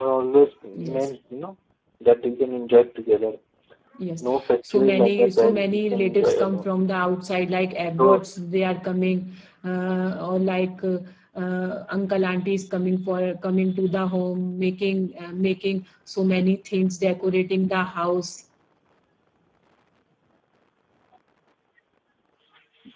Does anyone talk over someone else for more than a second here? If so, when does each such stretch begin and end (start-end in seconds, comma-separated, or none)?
4.7-6.6